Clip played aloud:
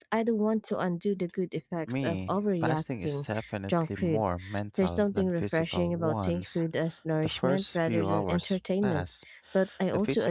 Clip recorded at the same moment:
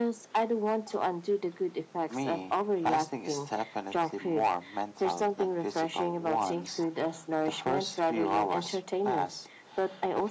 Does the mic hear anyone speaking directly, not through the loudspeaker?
No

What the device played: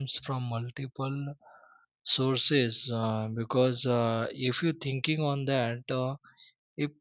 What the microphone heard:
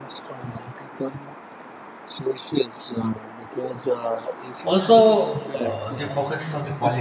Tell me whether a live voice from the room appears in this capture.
Yes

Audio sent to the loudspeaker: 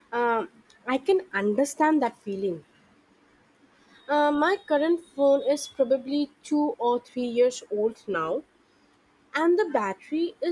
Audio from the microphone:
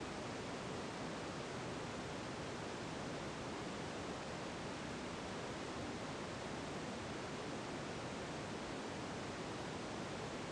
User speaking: No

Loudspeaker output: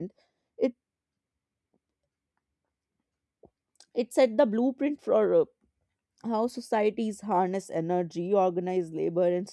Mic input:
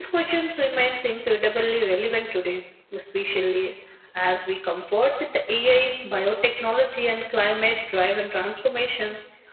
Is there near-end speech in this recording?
Yes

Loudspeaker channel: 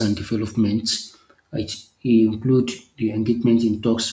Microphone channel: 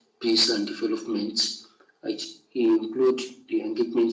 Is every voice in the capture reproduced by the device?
Yes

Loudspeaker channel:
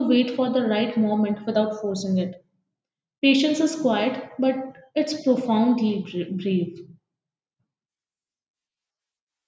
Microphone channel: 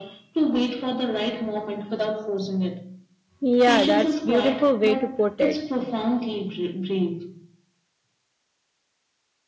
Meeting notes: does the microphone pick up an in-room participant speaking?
Yes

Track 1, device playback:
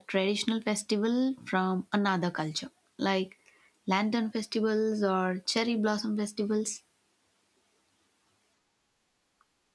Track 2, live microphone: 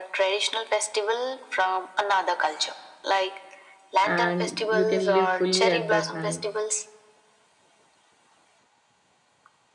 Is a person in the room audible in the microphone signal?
Yes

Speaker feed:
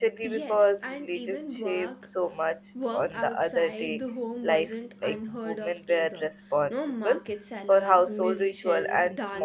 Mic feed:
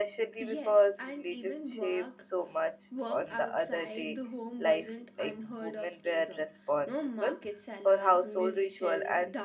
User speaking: No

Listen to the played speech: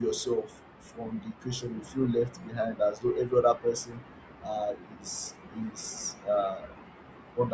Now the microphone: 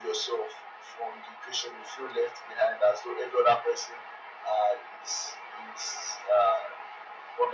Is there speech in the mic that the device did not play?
No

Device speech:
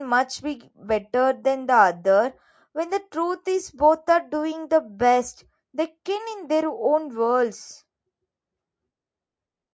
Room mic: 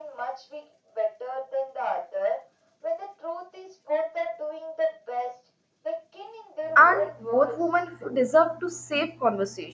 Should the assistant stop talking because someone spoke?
Yes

